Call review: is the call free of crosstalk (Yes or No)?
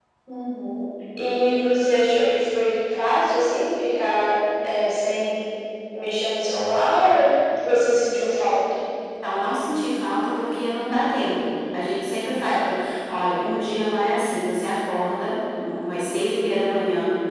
Yes